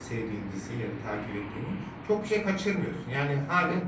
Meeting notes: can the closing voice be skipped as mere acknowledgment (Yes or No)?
Yes